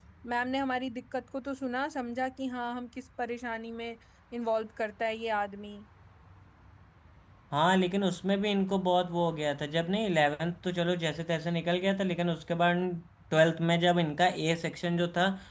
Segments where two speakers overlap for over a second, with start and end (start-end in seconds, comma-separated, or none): none